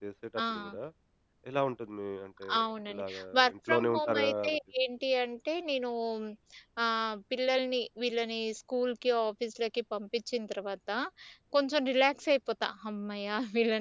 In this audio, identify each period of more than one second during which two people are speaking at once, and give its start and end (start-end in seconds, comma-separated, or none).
2.9-4.6